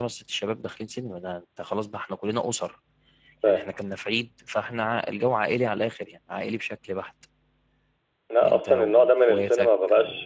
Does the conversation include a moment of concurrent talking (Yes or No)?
Yes